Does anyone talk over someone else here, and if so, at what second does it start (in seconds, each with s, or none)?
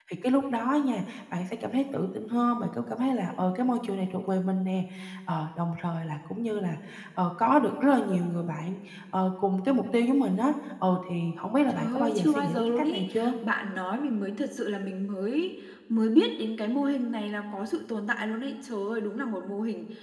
11.7 s